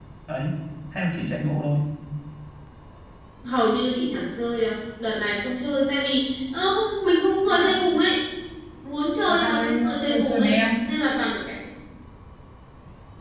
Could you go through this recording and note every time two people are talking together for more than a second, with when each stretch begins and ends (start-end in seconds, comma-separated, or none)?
9.3-10.5